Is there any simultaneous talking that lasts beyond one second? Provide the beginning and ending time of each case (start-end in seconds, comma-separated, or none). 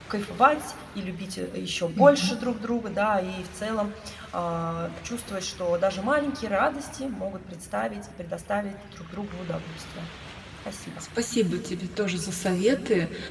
none